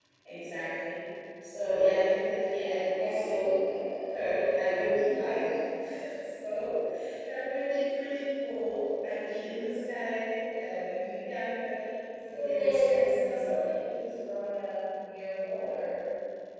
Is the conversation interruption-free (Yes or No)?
No